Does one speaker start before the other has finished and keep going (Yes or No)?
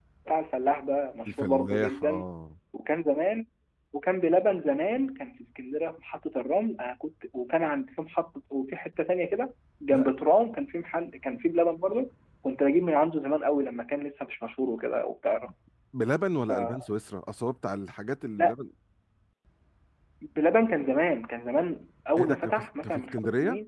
Yes